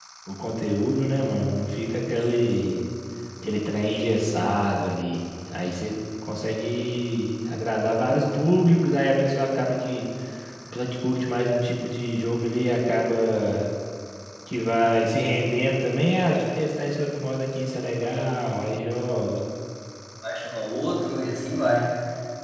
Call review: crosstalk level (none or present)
none